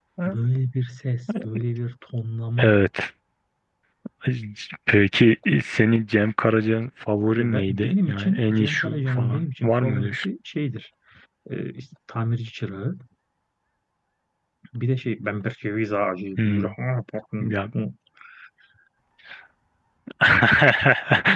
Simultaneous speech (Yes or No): Yes